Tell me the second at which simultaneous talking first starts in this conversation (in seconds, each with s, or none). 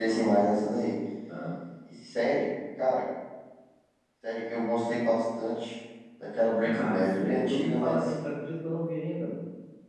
6.6 s